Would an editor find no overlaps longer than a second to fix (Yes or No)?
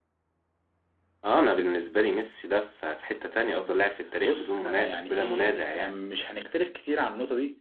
No